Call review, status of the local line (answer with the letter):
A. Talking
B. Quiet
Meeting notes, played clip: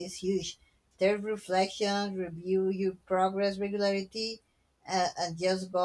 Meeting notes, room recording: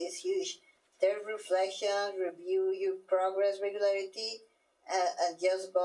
B